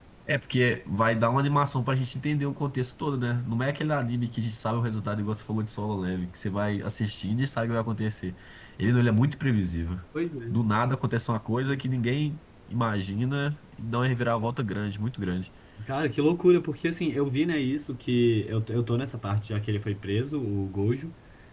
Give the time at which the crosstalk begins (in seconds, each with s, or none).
none